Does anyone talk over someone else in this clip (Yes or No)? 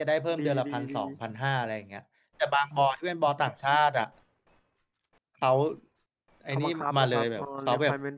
Yes